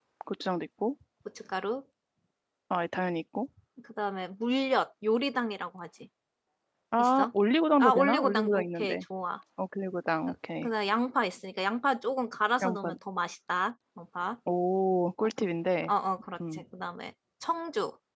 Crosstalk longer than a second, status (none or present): present